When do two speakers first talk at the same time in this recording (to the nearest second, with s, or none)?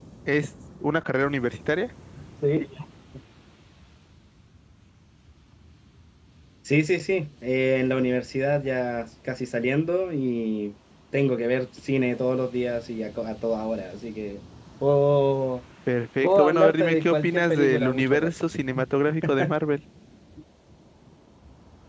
16 s